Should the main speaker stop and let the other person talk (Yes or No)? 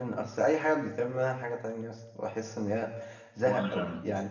No